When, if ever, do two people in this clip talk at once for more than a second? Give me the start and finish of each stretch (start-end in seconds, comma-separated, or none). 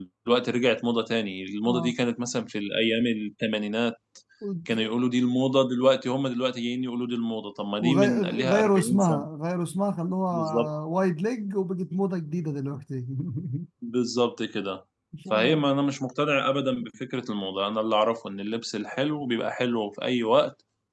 7.8-9.3